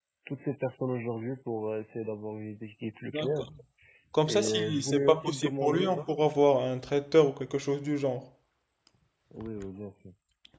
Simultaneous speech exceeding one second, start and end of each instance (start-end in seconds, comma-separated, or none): 4.3-6.1